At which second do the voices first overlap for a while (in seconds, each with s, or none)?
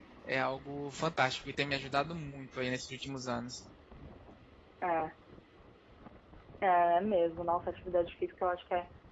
none